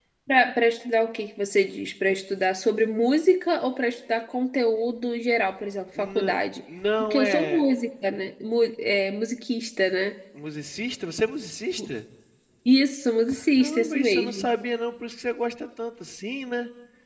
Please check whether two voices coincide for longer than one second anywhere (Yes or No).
Yes